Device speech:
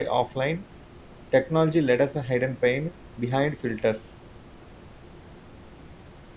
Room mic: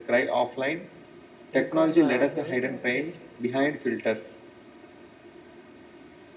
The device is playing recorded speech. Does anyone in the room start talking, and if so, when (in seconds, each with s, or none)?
1.6 s